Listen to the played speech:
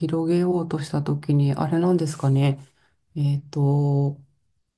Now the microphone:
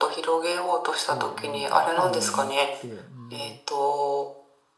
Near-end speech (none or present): present